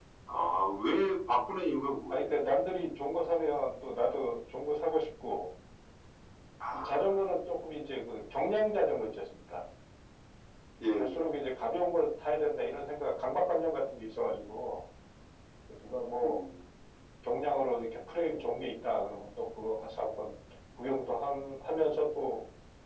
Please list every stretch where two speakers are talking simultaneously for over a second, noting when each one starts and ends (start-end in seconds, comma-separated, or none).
none